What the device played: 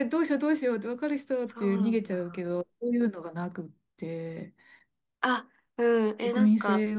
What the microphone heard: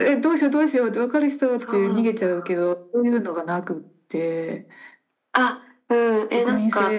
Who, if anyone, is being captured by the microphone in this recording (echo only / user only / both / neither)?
echo only